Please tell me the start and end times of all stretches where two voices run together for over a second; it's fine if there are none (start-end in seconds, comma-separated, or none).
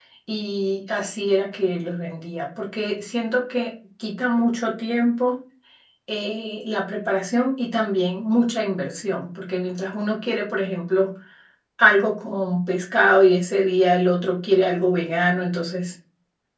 none